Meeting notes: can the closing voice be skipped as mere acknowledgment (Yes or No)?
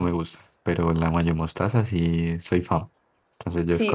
No